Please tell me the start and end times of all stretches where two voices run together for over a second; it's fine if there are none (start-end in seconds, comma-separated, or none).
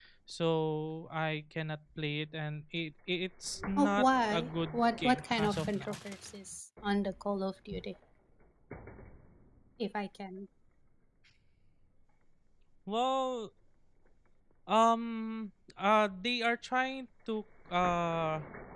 3.8-6.0